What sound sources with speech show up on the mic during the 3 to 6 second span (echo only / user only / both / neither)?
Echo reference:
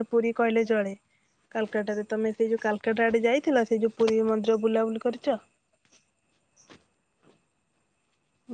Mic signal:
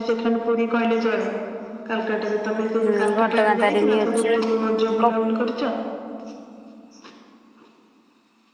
both